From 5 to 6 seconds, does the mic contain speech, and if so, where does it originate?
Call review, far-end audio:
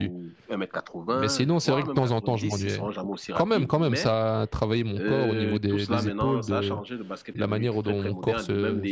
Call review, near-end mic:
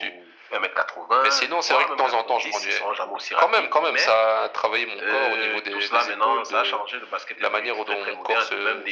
echo only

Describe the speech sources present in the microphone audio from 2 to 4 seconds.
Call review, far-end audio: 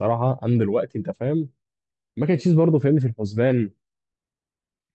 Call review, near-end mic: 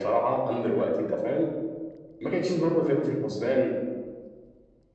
echo only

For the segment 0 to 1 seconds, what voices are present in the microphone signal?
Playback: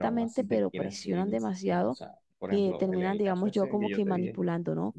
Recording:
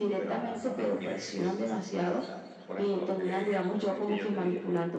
both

